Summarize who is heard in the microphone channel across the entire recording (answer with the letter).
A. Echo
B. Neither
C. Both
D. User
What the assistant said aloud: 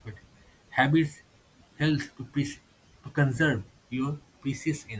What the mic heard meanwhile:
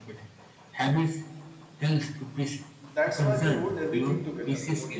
C